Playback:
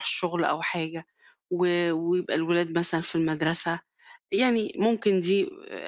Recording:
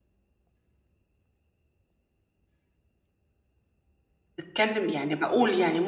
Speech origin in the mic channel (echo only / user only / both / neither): user only